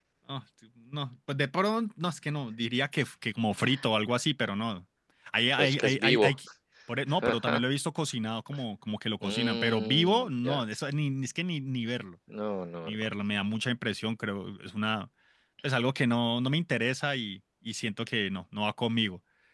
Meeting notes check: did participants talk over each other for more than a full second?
Yes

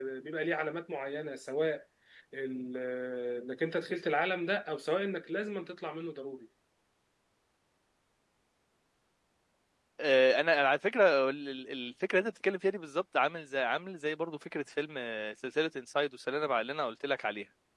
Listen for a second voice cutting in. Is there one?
No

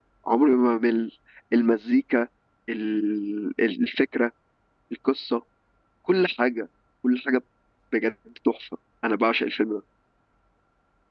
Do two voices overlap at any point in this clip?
No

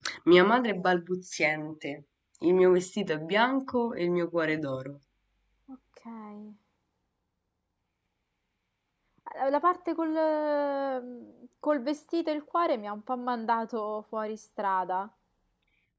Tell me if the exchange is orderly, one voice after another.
Yes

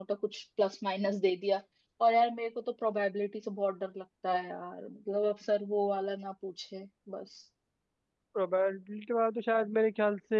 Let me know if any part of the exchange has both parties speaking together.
No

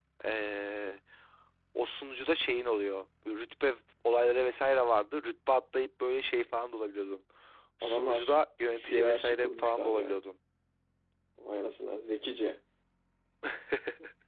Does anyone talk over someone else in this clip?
Yes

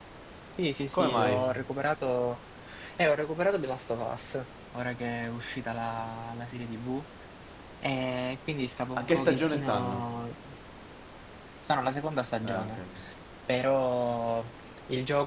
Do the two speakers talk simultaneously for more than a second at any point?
Yes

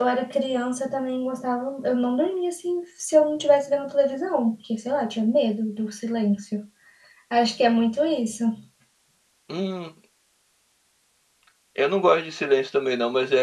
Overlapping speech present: No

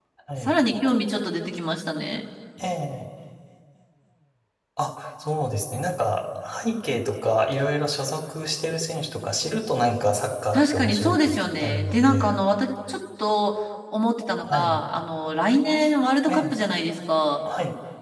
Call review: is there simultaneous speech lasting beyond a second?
Yes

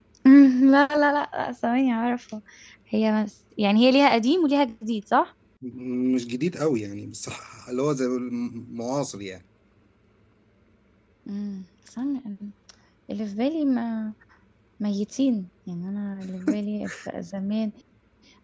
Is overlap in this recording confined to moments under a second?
Yes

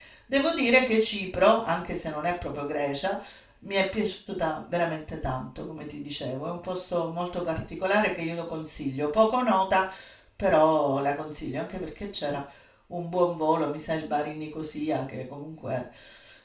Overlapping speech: No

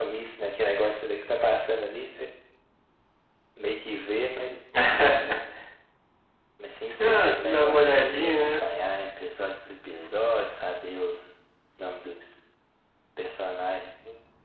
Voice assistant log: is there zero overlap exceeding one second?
No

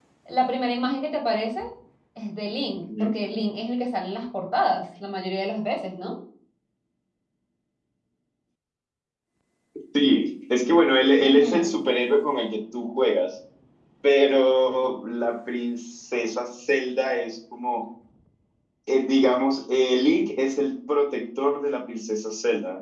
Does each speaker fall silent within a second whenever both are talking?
Yes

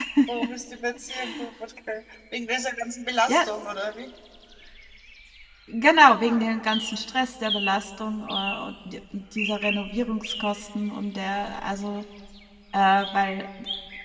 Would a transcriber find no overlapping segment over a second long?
Yes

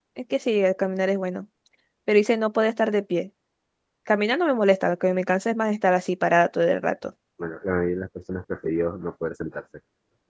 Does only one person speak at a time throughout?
Yes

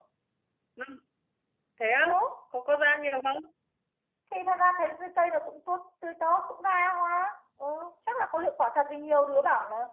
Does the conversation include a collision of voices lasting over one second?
No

